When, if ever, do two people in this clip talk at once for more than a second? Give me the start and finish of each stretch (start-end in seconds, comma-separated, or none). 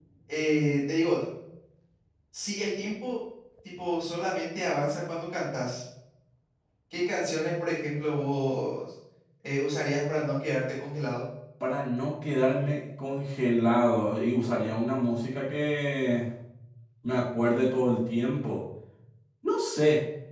none